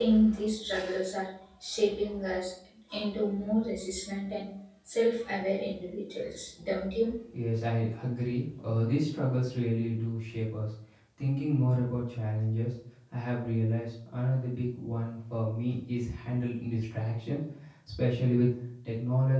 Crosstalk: none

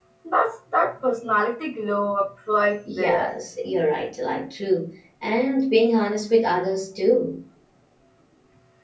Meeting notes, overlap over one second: none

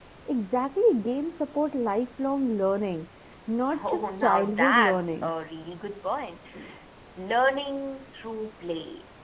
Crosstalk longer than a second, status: present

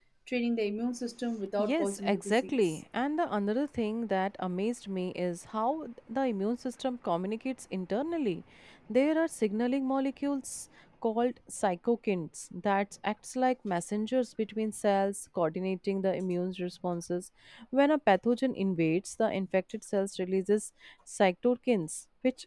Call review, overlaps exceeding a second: present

